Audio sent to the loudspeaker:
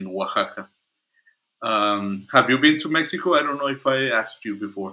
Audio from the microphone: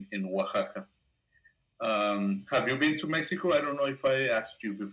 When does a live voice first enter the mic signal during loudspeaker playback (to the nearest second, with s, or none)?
none